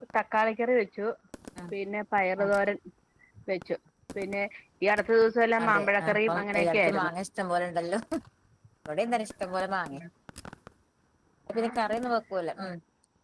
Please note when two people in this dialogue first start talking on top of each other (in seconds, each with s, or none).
5.6 s